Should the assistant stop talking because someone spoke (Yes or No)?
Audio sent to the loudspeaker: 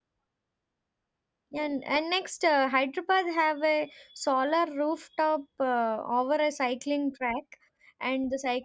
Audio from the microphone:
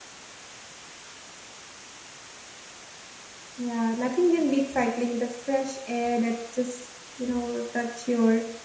Yes